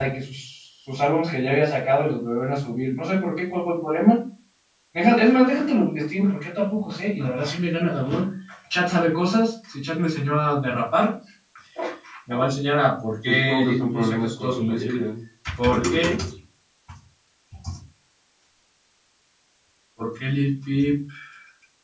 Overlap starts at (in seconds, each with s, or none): 13.2 s